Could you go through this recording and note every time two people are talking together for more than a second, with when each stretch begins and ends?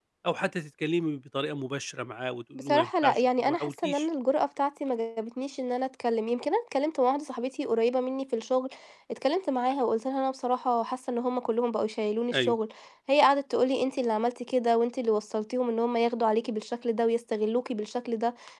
2.5-4.1

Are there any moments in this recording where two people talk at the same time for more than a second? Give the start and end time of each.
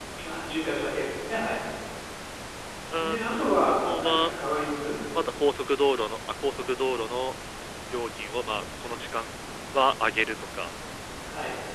3.0-4.3

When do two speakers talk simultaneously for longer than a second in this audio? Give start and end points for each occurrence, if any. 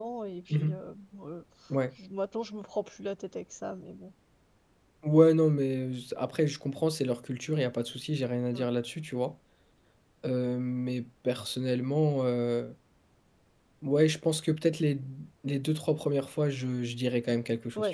none

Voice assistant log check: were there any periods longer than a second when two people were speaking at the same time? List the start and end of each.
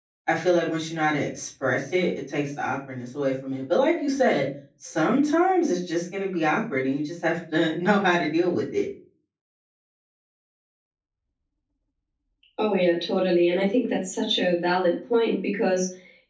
none

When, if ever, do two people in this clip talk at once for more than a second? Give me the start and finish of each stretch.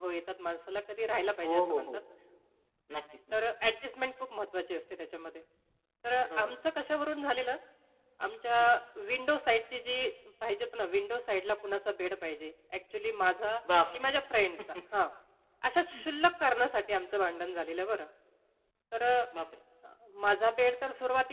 none

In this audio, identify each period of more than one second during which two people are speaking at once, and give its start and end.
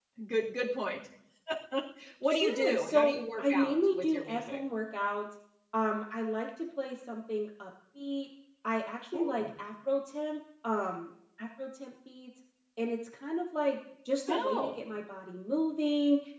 2.3-4.6

